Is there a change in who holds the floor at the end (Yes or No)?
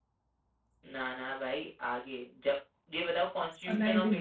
Yes